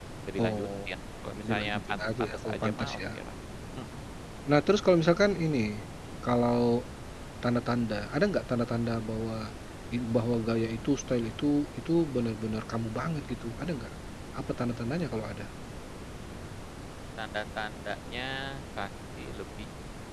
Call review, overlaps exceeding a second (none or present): present